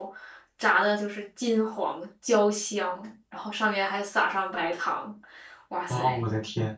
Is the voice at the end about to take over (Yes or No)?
Yes